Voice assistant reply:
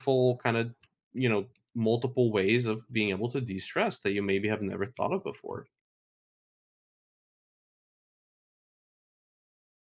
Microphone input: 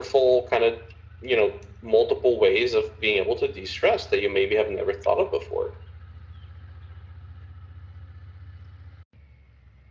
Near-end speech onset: none

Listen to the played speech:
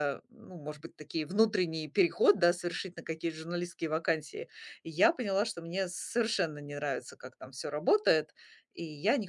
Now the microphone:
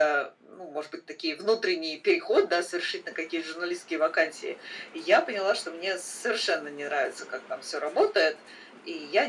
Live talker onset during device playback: none

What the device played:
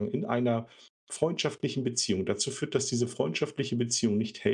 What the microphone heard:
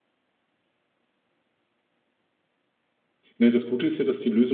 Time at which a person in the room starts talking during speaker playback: 3.4 s

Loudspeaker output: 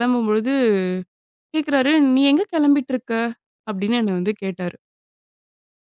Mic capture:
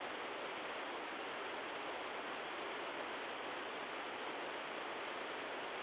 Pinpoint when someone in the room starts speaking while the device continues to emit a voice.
none

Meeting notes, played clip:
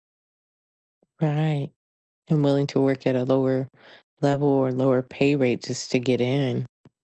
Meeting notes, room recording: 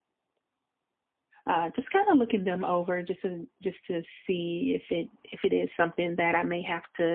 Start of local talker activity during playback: 1.5 s

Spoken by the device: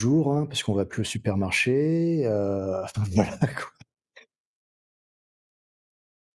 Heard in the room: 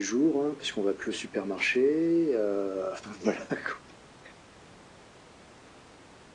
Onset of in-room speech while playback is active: none

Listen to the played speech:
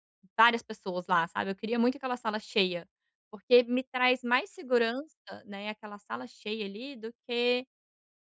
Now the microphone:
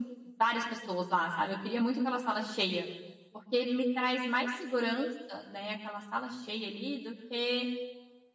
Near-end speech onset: none

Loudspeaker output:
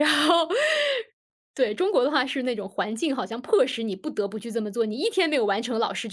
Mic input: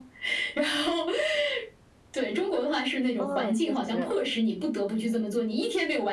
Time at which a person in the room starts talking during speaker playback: 3.2 s

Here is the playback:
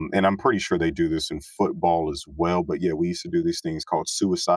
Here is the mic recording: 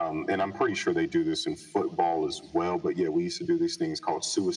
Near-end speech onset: none

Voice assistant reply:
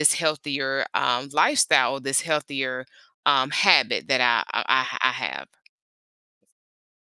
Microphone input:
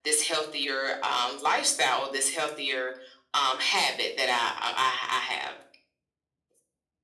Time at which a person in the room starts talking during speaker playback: none

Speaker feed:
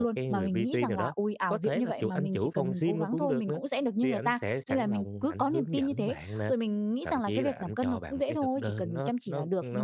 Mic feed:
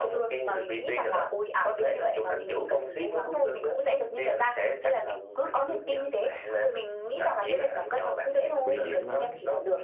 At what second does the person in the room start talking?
8.6 s

